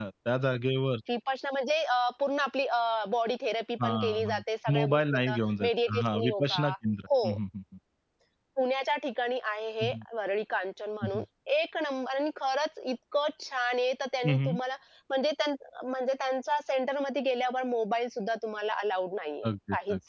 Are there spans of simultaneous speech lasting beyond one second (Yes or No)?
Yes